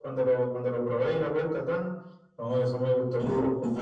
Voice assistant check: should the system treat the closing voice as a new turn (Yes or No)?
Yes